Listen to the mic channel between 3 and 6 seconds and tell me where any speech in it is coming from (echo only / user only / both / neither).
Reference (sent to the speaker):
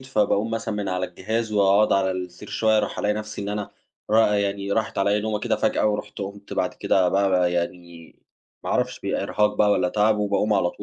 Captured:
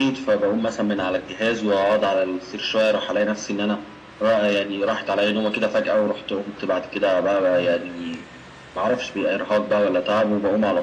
echo only